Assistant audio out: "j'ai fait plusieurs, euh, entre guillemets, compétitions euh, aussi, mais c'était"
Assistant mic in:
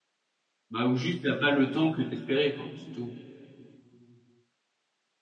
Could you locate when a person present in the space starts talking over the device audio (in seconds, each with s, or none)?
0.7 s